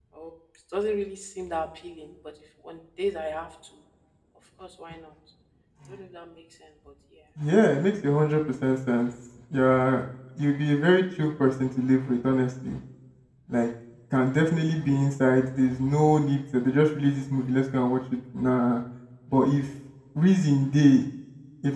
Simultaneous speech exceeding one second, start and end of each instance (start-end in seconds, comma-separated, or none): none